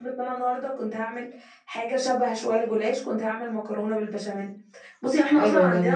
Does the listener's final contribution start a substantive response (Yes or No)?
No